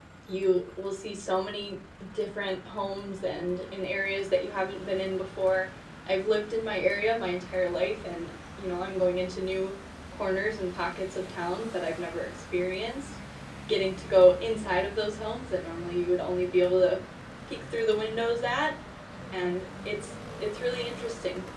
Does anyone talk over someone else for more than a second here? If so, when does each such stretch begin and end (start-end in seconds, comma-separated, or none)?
none